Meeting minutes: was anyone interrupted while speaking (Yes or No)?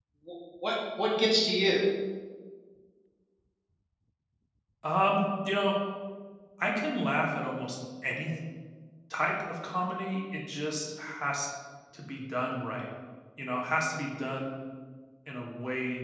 No